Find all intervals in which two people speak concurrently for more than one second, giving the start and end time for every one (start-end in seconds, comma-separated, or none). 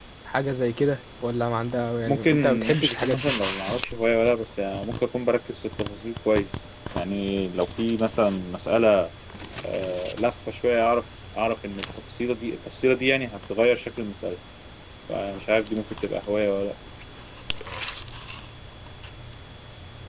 2.0-3.3